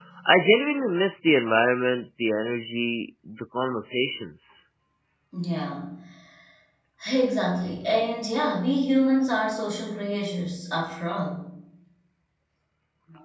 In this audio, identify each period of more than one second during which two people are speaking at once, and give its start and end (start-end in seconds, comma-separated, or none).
none